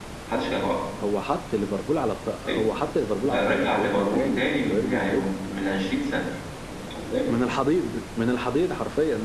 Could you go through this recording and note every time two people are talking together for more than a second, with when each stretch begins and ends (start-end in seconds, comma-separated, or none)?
3.2-5.3